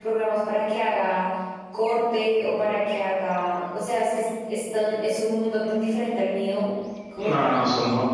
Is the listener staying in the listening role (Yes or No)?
No